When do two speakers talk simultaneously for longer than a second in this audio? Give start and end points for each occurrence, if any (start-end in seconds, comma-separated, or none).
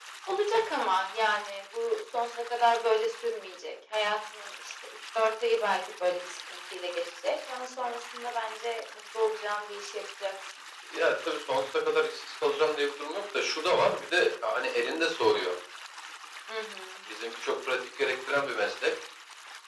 none